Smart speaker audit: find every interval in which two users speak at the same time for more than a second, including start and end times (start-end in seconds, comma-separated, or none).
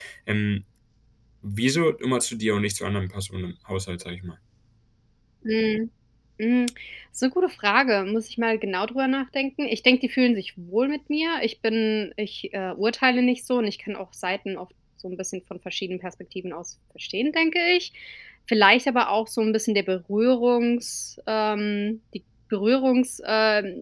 none